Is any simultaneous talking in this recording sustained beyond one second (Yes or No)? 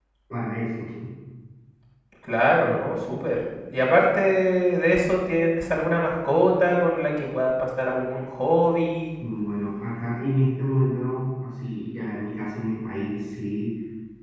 No